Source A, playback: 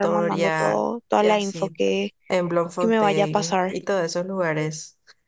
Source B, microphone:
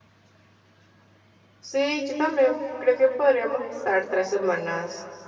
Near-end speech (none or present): present